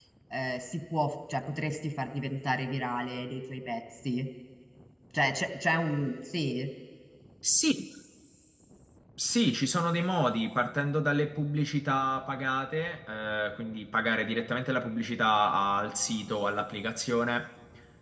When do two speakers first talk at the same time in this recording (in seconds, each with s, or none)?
none